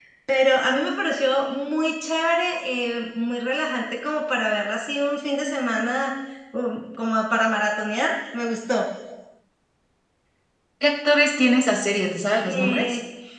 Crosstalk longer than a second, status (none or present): none